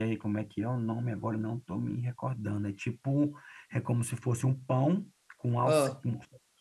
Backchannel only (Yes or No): Yes